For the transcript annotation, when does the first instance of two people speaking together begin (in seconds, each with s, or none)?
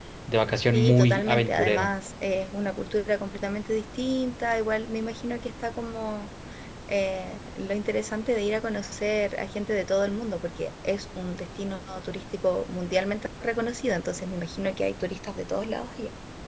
0.7 s